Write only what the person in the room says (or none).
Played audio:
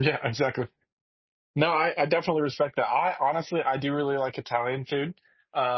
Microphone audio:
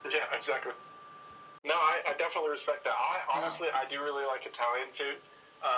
Wow.